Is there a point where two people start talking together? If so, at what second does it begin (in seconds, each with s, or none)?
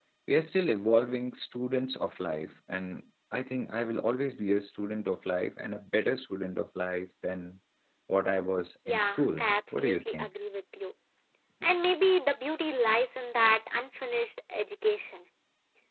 8.9 s